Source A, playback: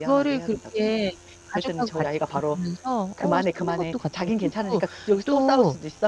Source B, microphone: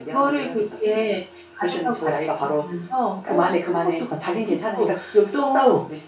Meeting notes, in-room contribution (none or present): none